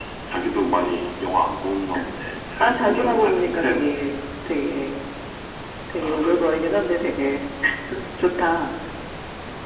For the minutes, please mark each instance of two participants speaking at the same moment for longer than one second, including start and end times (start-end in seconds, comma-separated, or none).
2.6-3.9